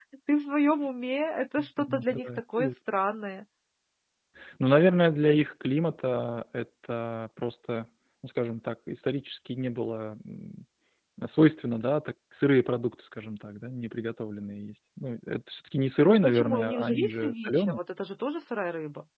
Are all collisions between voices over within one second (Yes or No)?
No